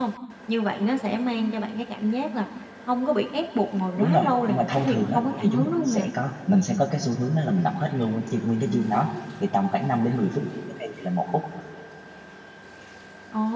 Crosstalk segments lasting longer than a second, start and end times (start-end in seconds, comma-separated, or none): 4.0-6.1